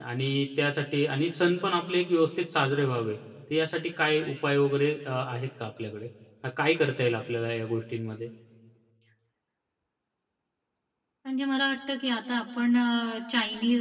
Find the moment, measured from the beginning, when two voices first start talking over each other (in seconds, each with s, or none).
none